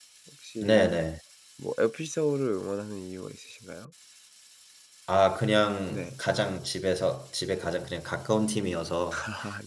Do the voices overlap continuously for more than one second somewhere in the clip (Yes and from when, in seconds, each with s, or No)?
No